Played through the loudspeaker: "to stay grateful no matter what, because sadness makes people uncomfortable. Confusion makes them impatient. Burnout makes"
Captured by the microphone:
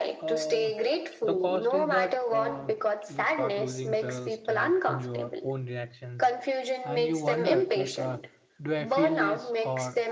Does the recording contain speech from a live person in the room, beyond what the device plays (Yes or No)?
Yes